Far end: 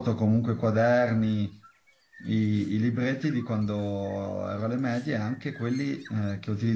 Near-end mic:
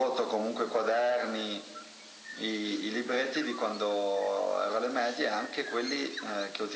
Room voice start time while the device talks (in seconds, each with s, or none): none